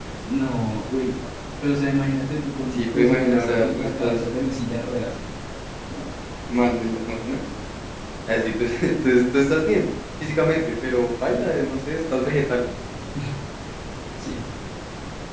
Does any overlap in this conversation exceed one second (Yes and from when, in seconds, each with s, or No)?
Yes, from 2.7 s